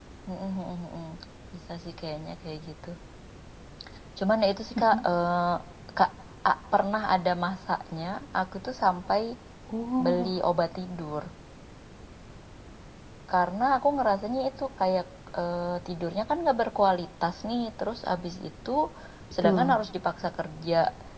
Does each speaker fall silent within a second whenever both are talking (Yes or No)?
Yes